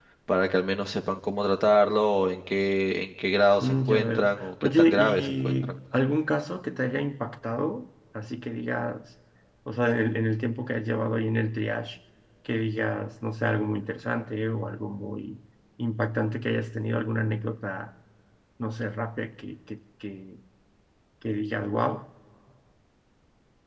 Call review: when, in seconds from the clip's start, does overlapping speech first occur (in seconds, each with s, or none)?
3.6 s